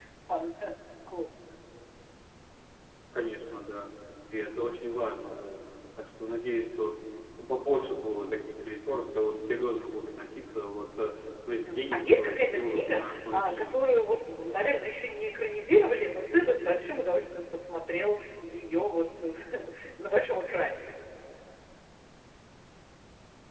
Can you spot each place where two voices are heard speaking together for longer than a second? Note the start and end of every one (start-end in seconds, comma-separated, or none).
11.5-13.8